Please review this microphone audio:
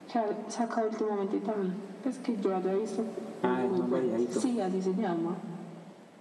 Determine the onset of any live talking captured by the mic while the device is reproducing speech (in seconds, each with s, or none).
3.4 s